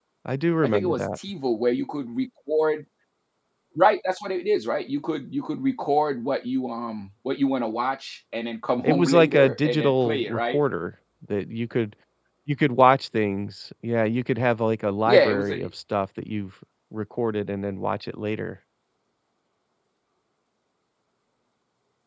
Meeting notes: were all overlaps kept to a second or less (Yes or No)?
No